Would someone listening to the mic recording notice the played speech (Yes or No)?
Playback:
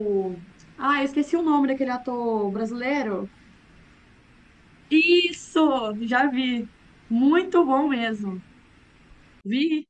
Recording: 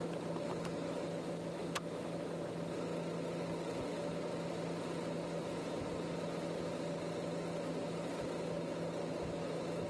No